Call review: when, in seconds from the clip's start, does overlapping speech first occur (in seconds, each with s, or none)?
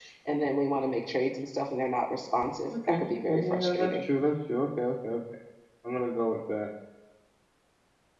2.7 s